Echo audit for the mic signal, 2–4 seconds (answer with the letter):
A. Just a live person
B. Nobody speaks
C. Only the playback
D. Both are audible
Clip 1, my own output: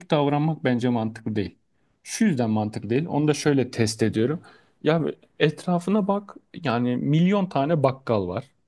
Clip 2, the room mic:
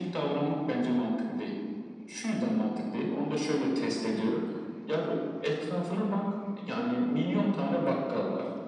C